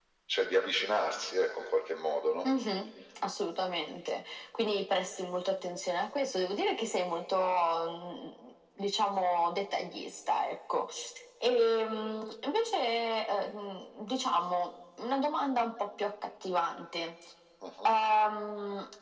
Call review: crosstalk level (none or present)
none